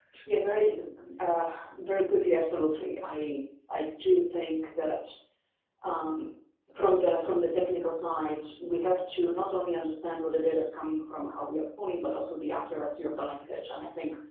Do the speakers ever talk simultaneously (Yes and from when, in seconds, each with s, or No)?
No